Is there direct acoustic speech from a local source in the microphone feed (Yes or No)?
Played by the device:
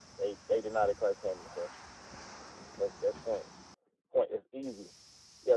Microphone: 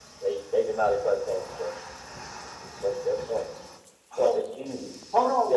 Yes